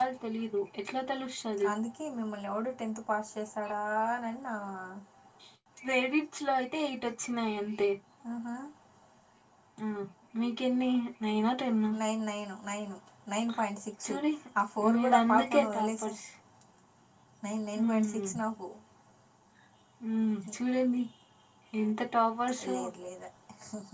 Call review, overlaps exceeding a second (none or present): present